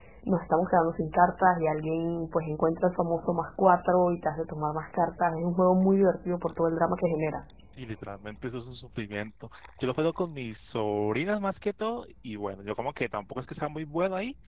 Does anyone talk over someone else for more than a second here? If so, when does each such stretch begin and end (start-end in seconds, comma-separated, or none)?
none